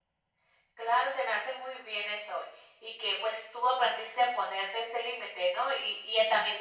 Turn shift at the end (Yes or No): No